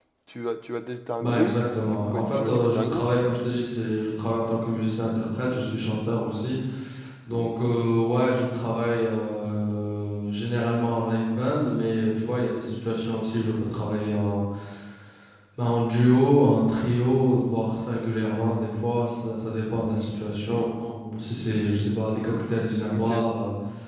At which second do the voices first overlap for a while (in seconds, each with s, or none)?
1.2 s